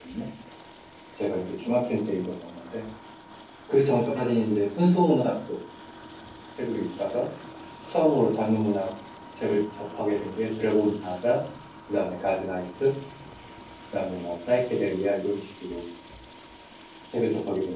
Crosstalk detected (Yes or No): No